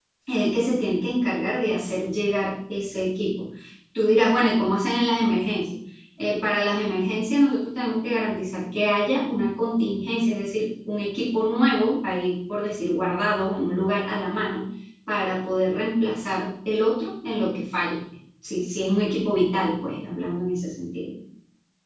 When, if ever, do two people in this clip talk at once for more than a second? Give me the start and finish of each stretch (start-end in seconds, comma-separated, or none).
none